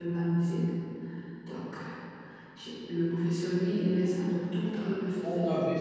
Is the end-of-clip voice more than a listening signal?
Yes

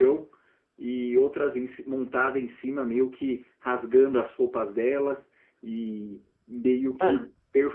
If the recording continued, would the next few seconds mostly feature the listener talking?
No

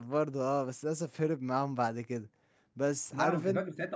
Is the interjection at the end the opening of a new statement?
Yes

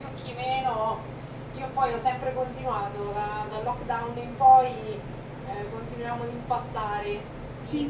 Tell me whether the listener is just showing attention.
No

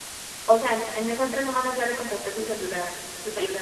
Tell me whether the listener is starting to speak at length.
Yes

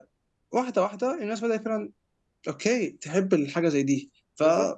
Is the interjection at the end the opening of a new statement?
Yes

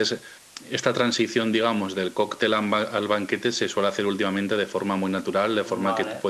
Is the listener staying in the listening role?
Yes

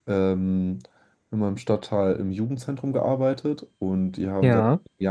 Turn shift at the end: No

